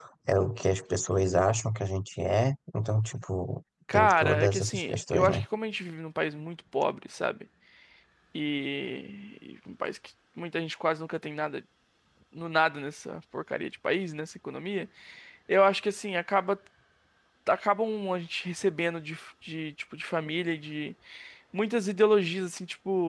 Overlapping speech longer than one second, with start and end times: 3.9-5.4

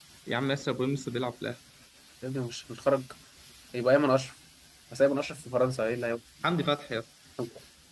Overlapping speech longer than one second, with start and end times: none

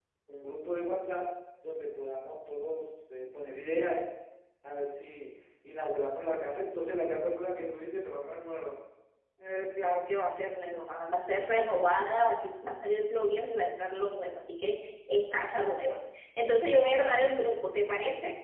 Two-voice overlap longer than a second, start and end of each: none

